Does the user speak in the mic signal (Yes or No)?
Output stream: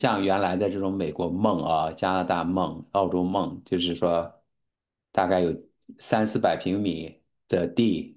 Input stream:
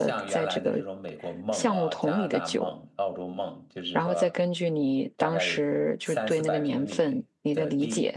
Yes